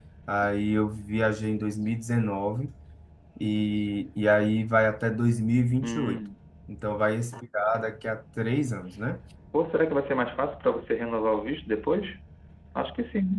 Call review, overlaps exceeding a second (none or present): none